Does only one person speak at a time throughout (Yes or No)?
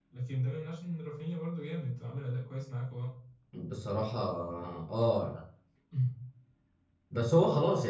Yes